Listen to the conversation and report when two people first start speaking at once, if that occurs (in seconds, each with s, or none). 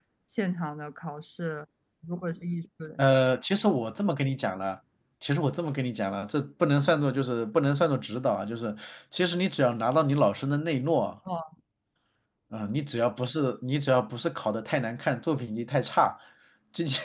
none